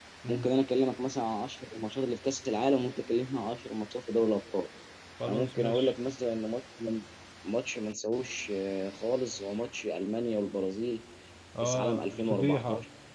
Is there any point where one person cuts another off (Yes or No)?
Yes